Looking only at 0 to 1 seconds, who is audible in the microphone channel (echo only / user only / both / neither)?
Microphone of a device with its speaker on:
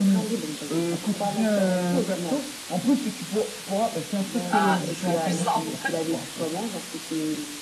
echo only